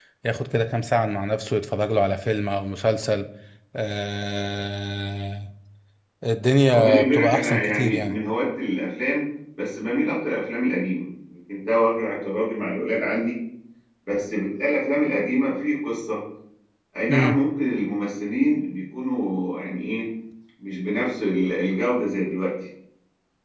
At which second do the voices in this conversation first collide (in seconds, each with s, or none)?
6.7 s